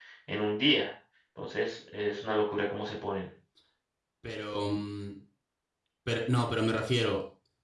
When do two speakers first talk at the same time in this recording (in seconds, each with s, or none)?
none